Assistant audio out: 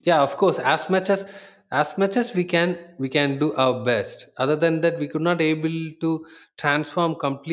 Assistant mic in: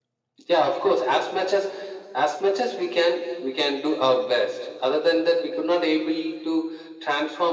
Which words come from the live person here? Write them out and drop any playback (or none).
none